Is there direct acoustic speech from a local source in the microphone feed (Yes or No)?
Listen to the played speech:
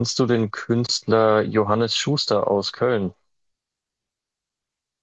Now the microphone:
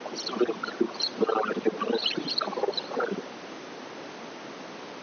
No